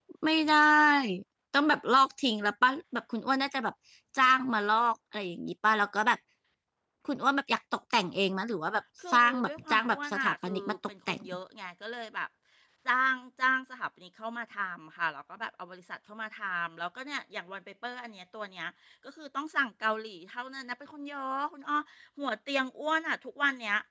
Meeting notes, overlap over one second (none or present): present